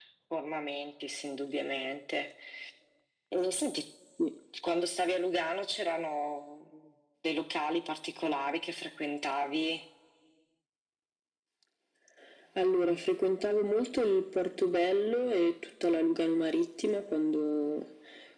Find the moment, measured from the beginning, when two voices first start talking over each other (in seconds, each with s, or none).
none